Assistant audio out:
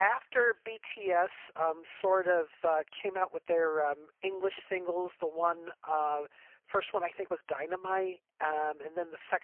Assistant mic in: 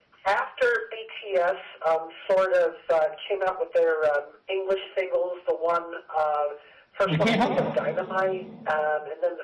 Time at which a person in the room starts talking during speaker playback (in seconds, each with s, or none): 7.0 s